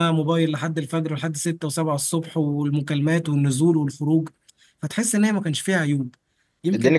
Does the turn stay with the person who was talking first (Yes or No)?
No